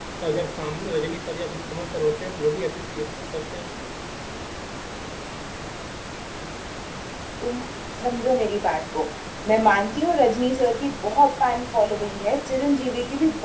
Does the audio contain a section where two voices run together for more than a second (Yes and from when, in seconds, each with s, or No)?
No